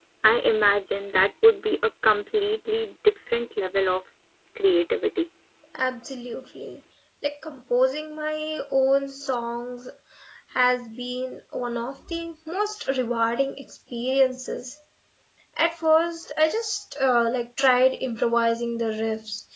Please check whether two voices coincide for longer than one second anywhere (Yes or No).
No